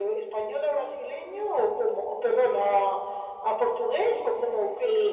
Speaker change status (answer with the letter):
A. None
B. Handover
B